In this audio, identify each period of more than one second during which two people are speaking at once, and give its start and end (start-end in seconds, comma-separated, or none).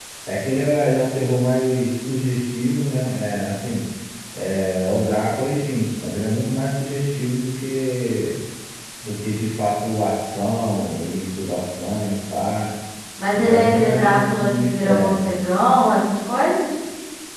13.3-15.2